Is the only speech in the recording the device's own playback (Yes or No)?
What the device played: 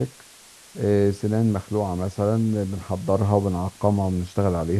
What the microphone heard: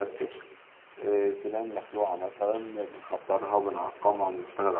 Yes